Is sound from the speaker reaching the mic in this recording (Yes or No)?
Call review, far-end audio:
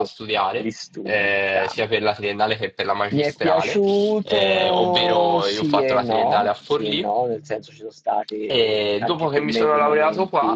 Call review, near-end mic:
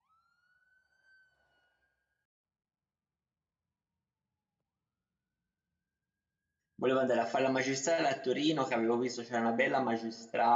No